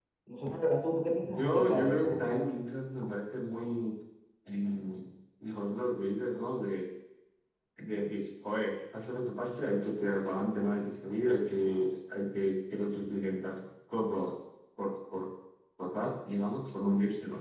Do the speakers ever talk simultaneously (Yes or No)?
Yes